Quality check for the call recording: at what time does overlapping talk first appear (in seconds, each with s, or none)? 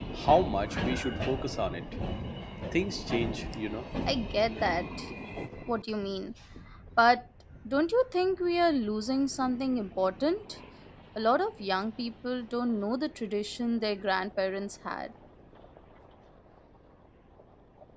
none